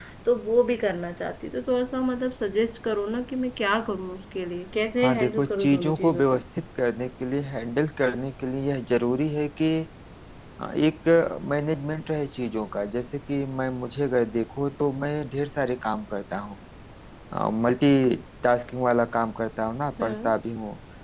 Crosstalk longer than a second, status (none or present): present